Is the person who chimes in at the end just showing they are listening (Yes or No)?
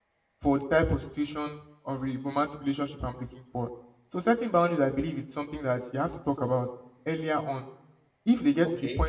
Yes